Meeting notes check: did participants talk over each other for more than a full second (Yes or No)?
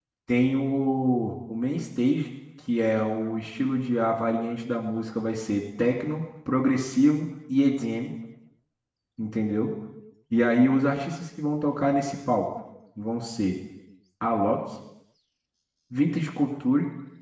No